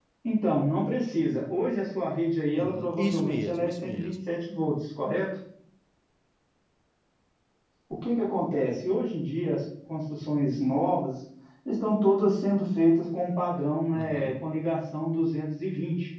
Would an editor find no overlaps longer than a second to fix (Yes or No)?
No